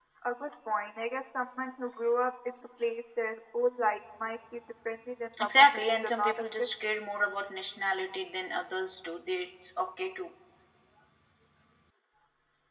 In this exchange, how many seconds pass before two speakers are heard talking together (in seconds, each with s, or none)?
5.4 s